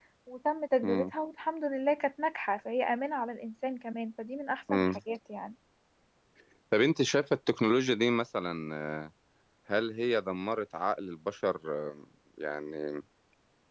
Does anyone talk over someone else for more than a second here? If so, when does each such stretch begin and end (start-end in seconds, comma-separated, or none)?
none